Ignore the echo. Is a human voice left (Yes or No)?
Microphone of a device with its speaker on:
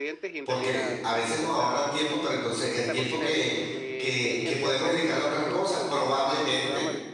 Yes